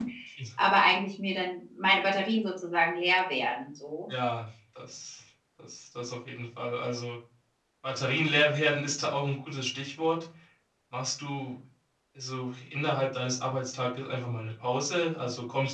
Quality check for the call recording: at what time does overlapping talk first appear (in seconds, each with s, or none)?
none